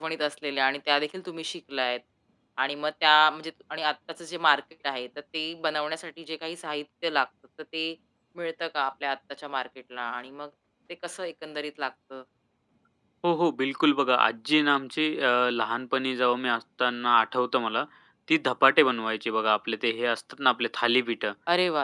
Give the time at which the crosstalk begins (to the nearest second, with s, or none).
none